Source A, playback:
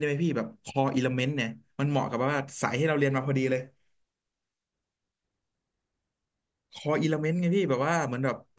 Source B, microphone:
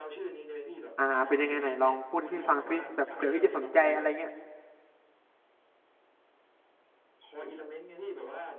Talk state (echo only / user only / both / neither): both